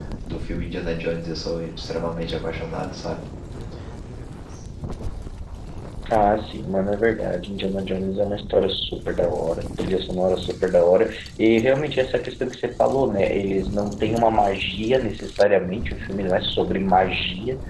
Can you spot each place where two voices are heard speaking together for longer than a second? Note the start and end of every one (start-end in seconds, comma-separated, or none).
none